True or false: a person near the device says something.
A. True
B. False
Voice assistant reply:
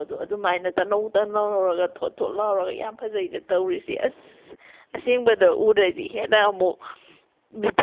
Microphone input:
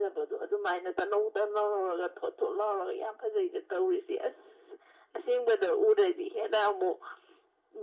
B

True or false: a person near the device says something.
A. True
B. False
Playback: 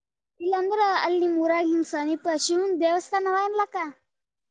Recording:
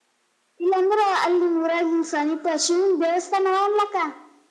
B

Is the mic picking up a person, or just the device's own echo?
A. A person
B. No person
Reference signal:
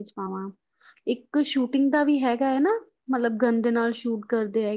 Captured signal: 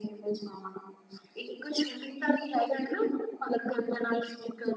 B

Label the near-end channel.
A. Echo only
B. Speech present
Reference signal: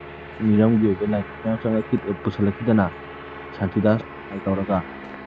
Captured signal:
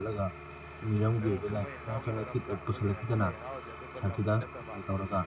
B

